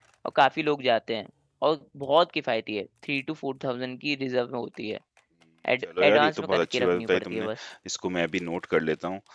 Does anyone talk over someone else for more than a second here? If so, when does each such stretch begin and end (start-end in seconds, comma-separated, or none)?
6.0-7.5